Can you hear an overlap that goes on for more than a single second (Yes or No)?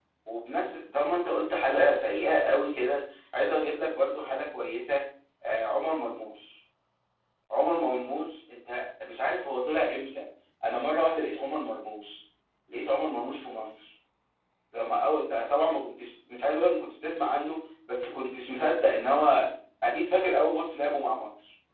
No